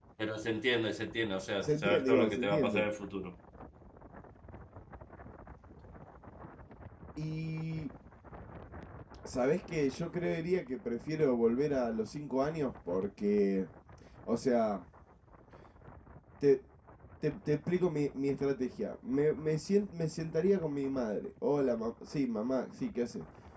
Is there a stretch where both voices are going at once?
Yes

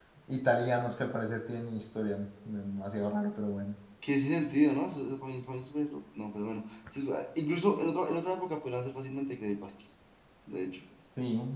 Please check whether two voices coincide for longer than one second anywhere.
No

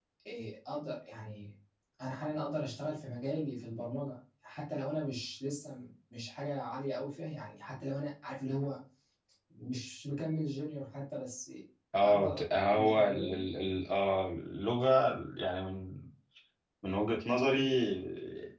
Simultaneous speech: Yes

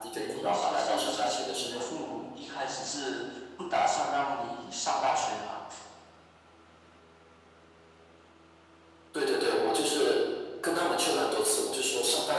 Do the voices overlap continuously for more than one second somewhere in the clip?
Yes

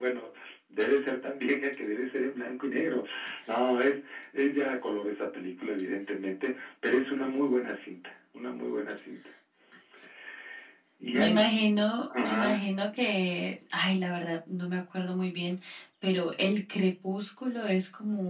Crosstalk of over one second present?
No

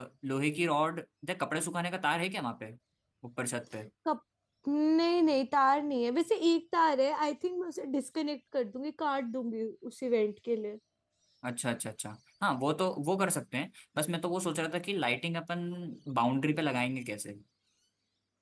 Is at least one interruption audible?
No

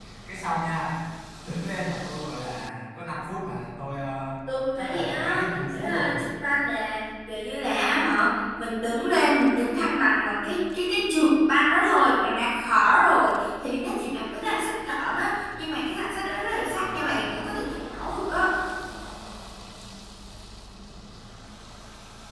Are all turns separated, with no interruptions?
No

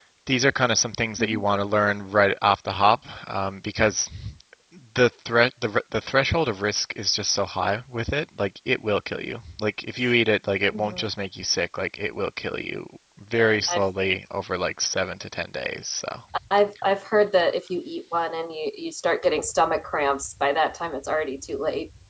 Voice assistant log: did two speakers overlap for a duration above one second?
No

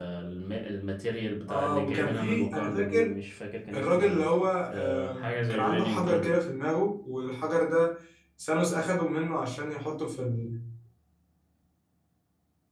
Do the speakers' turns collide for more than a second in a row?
Yes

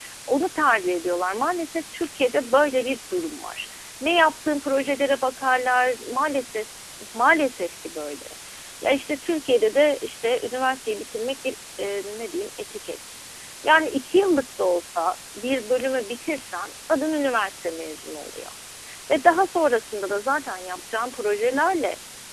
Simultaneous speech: No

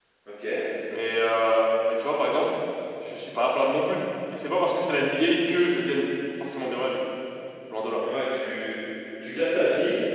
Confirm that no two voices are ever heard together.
Yes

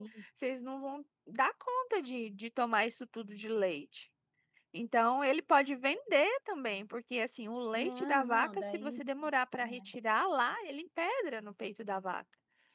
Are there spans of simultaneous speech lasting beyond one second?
Yes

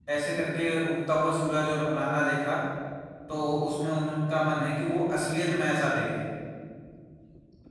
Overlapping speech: No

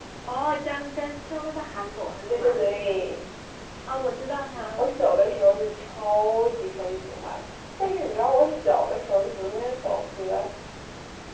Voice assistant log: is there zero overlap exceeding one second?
Yes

